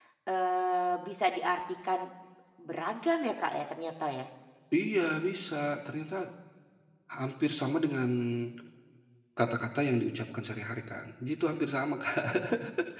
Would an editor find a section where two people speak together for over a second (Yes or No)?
No